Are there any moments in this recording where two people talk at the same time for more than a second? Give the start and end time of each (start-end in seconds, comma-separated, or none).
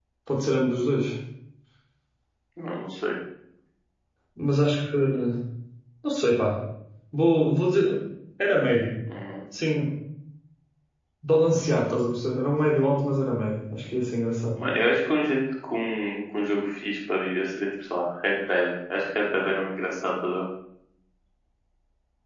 none